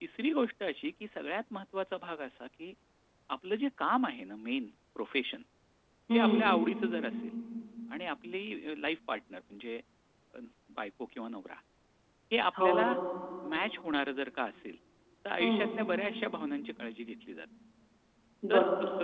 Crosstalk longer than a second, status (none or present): none